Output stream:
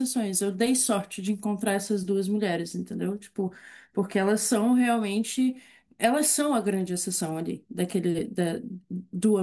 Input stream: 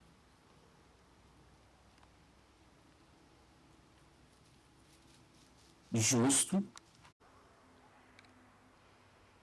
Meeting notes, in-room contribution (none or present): present